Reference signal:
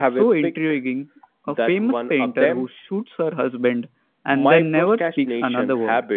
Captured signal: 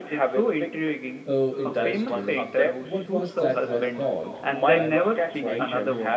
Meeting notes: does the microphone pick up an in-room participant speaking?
Yes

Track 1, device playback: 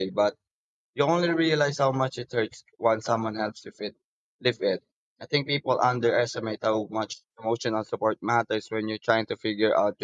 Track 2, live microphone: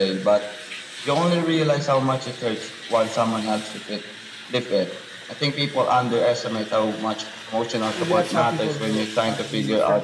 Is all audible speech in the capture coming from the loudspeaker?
No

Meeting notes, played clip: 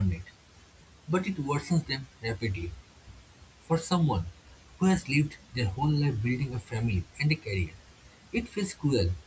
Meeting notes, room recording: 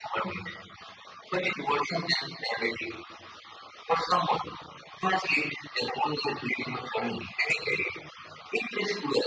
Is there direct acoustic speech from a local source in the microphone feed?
No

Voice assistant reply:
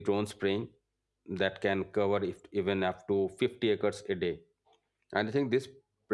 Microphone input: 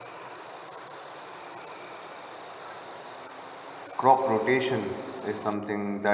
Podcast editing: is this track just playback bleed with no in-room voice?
No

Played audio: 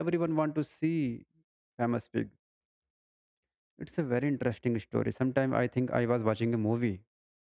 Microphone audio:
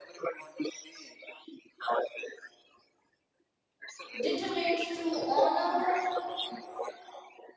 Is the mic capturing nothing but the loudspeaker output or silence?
No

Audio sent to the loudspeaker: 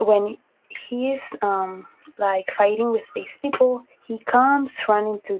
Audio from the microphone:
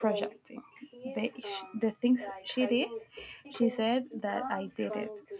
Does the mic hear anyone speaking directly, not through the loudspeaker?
Yes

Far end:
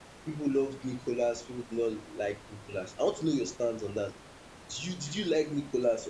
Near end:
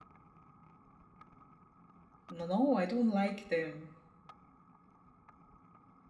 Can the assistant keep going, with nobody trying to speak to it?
No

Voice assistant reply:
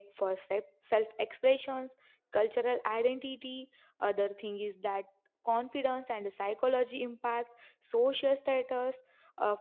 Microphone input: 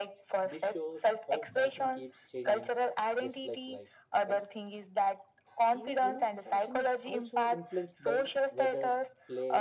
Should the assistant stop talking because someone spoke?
Yes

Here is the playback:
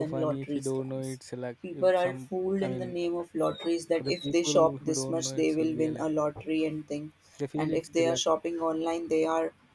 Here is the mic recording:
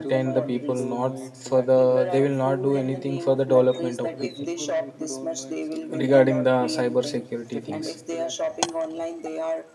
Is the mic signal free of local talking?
No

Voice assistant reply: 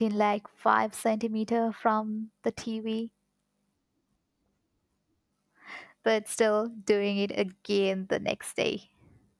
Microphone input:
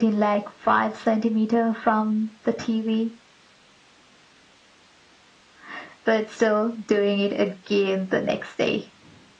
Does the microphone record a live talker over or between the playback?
No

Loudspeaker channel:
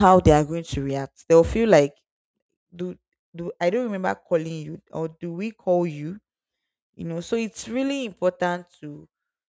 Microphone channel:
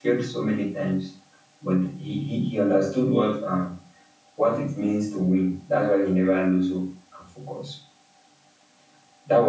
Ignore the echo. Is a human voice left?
Yes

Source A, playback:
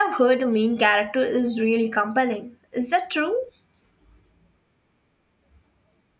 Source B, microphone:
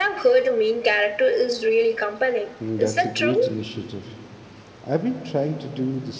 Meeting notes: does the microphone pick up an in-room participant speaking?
Yes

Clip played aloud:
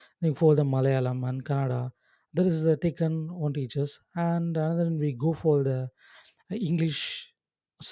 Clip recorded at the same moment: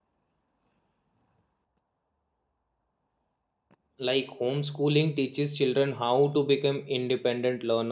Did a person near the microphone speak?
Yes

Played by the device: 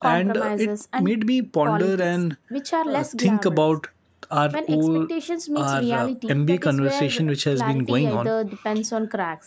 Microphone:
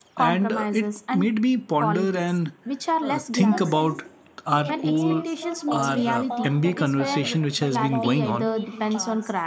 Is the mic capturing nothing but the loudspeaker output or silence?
No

